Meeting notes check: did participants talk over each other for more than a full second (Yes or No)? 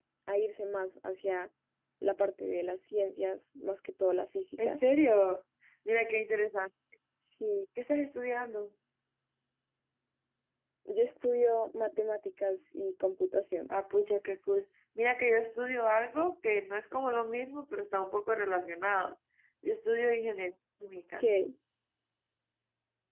No